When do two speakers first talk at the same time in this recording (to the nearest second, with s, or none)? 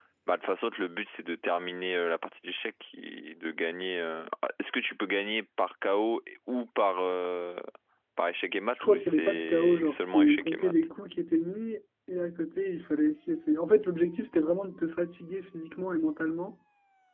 9 s